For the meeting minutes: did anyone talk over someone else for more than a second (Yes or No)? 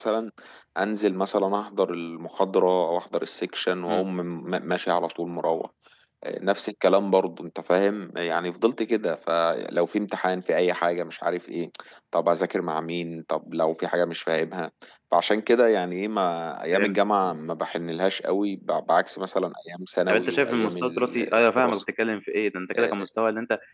Yes